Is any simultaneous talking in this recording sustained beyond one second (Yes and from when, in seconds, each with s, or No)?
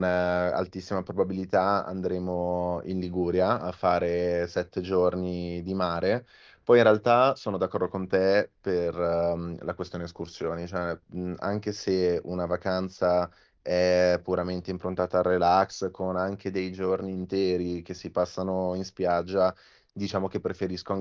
No